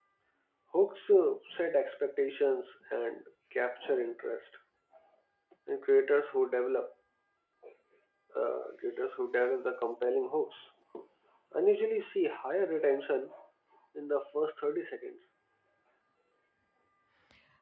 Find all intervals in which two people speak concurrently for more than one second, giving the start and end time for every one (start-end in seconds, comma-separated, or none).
none